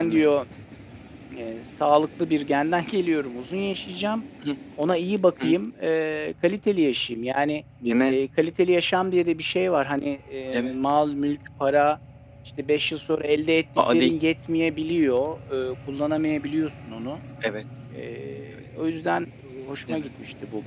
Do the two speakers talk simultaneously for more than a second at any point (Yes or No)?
No